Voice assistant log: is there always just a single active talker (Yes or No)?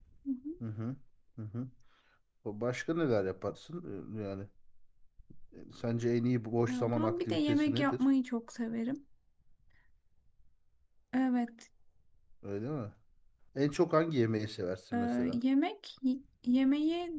No